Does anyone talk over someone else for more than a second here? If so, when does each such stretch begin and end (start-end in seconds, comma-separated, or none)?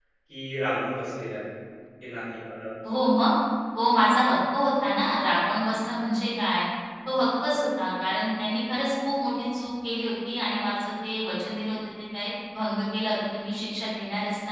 none